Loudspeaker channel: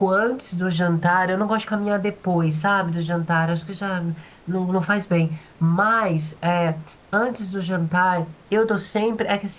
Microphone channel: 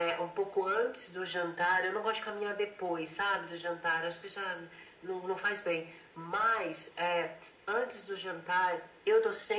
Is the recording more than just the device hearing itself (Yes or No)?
No